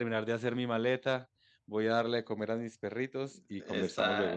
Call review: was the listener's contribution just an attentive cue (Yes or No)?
No